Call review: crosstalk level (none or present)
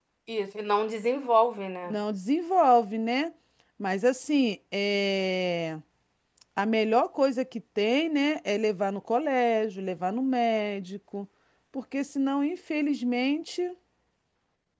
none